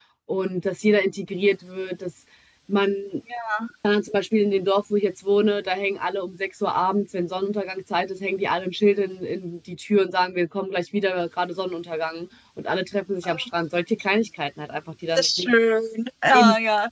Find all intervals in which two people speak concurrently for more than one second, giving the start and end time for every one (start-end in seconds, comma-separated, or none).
none